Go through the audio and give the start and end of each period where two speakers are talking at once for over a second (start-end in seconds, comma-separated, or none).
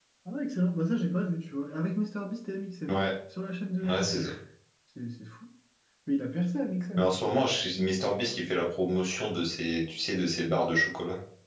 none